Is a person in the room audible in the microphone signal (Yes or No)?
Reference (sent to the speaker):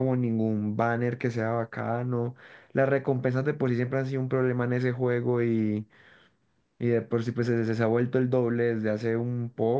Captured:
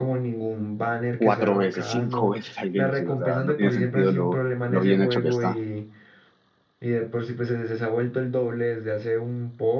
Yes